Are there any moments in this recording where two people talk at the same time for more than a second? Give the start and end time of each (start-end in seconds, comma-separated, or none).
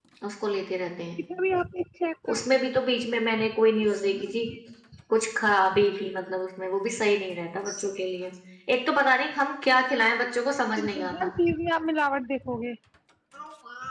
none